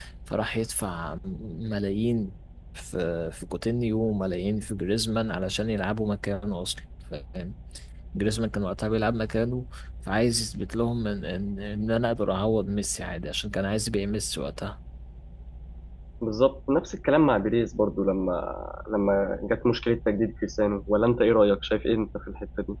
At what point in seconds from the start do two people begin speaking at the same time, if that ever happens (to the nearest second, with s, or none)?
none